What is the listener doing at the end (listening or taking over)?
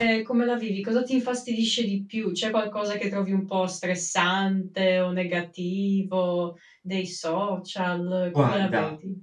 taking over